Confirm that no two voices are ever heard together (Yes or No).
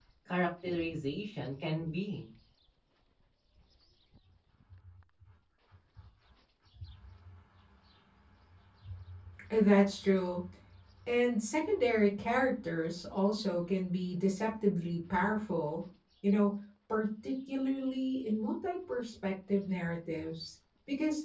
Yes